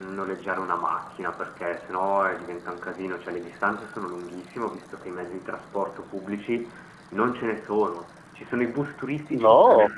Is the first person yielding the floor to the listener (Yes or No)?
No